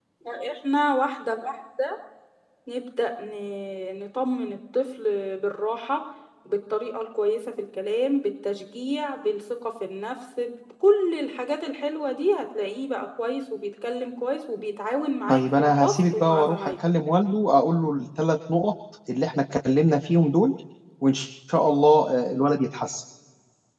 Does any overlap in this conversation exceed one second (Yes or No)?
Yes